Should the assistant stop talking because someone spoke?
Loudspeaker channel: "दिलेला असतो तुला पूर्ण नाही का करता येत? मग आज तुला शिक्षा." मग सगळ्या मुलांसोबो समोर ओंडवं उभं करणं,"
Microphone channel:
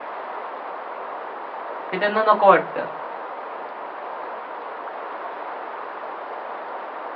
Yes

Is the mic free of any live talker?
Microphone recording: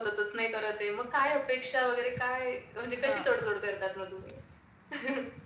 No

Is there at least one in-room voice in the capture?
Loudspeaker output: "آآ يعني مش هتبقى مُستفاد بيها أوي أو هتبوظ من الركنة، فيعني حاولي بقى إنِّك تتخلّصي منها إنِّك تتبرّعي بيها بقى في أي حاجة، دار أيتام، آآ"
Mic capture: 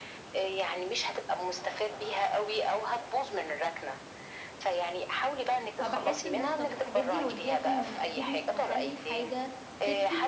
Yes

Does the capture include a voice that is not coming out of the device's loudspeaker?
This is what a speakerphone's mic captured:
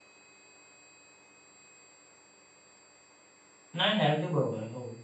Yes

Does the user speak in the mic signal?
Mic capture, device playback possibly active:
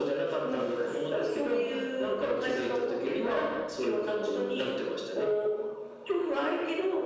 No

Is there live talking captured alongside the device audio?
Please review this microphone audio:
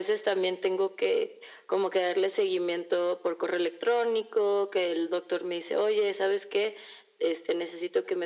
No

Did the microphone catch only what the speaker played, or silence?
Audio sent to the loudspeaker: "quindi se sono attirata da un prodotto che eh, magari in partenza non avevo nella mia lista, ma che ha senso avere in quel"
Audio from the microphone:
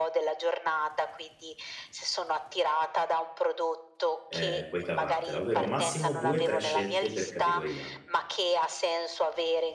No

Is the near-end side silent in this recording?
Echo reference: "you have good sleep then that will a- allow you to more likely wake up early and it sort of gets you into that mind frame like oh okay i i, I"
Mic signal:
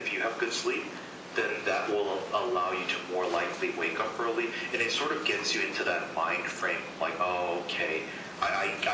Yes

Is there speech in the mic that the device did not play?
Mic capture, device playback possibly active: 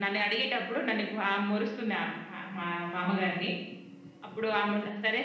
No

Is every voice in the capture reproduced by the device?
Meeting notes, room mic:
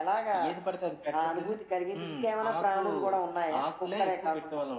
Yes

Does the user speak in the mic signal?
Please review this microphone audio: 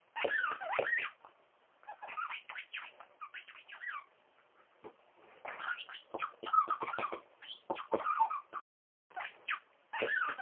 No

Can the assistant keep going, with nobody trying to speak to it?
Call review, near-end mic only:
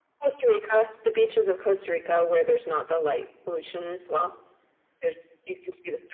Yes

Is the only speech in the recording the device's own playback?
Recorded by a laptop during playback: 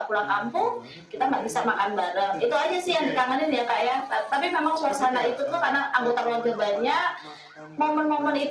No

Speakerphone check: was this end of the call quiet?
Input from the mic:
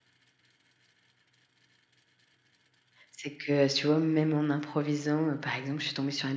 No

